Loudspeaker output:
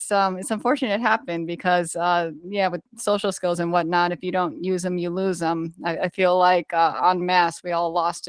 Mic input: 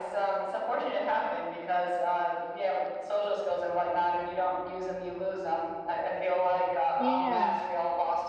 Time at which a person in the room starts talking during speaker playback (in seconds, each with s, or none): 7.0 s